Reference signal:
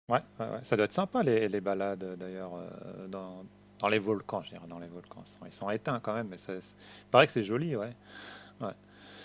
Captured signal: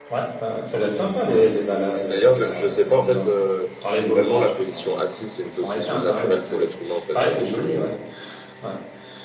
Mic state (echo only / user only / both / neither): both